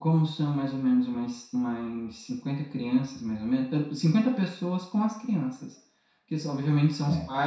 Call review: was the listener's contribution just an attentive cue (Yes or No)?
Yes